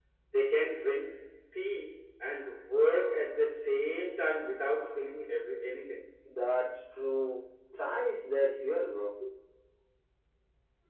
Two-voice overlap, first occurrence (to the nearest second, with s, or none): none